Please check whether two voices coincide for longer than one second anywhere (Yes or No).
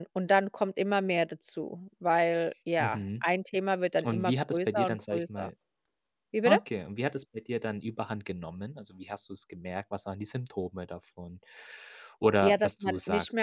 Yes